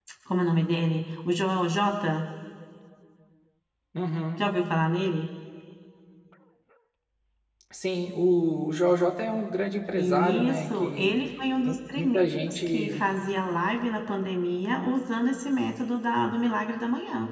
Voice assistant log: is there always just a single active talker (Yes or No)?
No